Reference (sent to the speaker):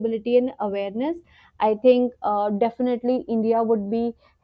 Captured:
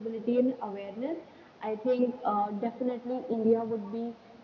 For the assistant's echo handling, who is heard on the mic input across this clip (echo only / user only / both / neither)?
echo only